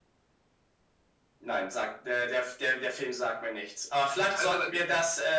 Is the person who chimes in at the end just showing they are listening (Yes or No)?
Yes